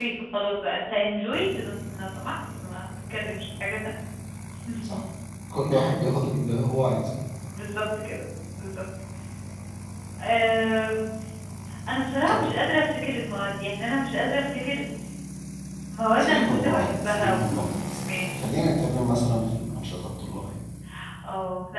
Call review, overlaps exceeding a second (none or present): present